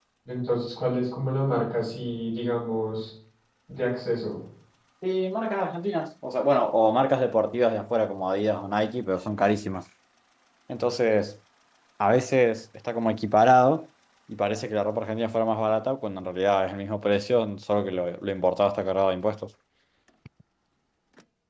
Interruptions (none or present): none